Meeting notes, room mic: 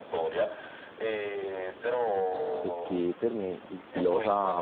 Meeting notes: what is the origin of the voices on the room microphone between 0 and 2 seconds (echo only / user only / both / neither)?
echo only